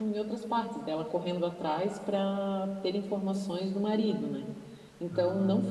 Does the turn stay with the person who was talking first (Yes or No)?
Yes